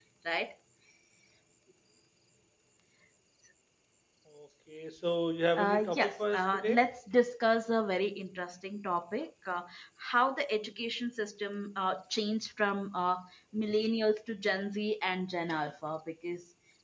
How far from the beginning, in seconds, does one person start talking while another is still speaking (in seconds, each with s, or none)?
5.5 s